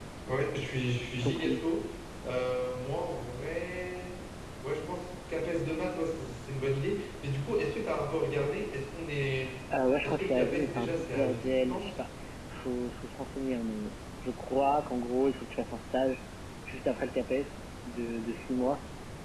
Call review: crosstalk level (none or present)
present